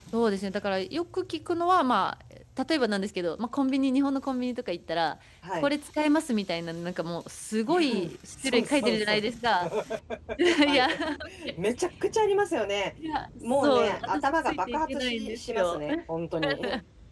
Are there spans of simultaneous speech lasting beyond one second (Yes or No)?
Yes